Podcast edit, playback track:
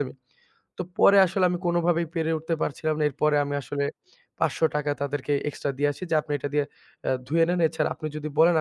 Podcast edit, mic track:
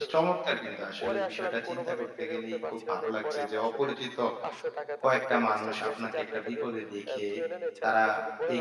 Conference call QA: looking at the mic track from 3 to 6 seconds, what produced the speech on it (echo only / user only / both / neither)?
both